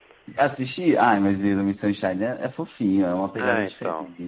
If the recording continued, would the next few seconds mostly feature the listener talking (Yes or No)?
Yes